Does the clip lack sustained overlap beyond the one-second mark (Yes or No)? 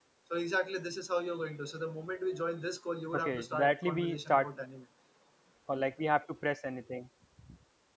No